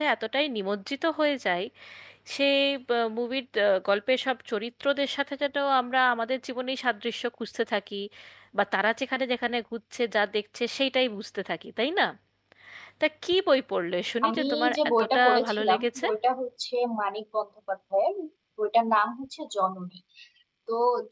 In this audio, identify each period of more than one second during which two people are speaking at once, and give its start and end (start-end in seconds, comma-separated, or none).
14.3-16.1